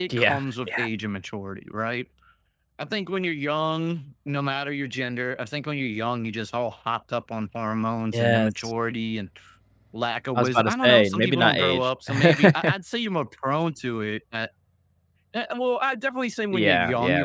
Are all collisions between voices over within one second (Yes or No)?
No